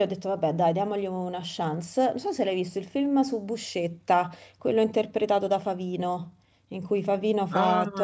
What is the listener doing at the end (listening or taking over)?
taking over